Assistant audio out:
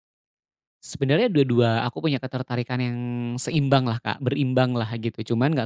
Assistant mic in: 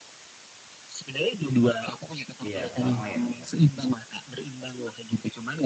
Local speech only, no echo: Iya, lama ya tuntasnya.

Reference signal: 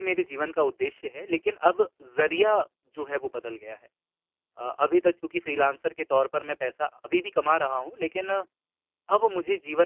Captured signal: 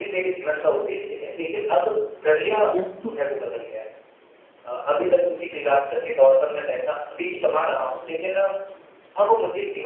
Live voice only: हुँ, हुँ।

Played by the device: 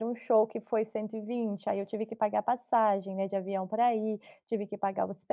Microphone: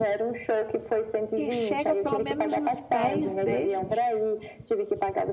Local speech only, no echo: que chega pelo menos nos pés deste?

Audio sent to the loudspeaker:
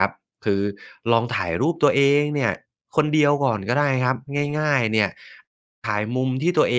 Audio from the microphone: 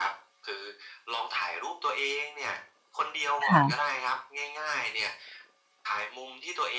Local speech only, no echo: ค่ะ

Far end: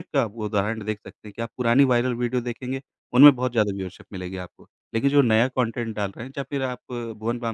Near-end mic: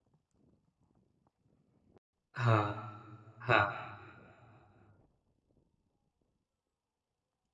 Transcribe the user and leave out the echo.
हाँ, हाँ,

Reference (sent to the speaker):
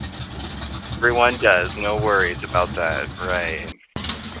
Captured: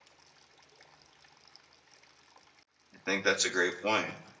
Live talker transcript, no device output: I think that's a great point.

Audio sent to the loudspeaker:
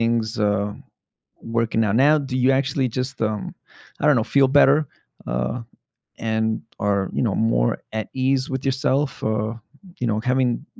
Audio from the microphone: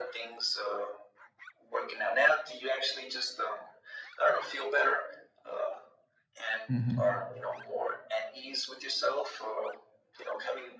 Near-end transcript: hmm

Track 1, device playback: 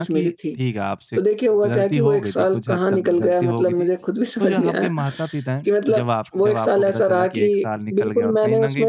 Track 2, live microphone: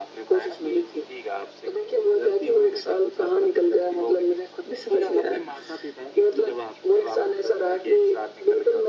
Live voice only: none

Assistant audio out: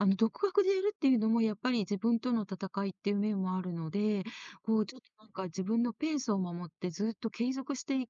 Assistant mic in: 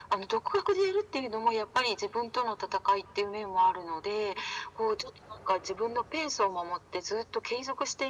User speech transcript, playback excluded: none

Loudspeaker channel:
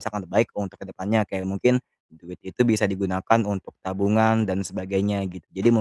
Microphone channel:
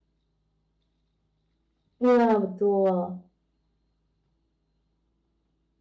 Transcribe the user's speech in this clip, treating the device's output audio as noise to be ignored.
Iya, betul.

